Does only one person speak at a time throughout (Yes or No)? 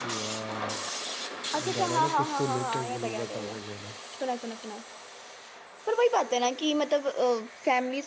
No